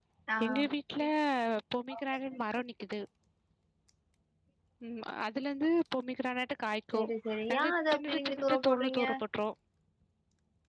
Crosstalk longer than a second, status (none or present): present